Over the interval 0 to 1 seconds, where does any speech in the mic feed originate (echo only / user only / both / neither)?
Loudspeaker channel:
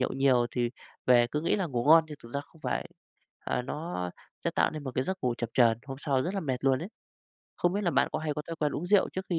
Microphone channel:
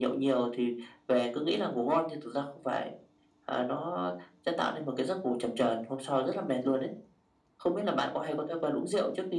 echo only